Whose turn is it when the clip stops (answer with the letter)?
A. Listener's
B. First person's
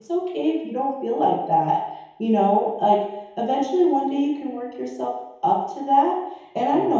B